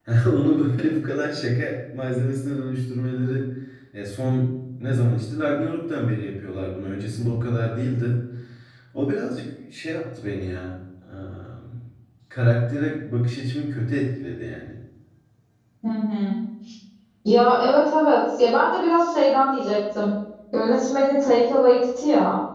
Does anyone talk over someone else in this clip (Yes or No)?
No